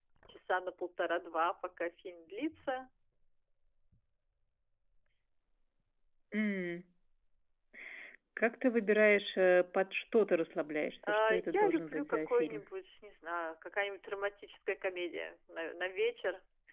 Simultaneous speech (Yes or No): Yes